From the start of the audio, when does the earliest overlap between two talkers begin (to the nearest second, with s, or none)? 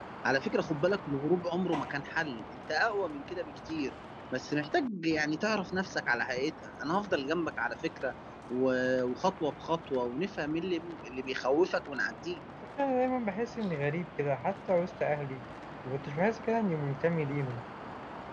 none